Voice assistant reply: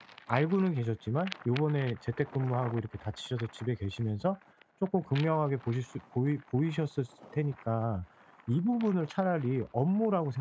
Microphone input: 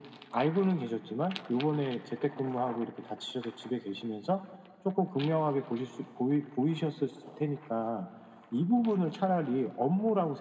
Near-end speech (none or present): none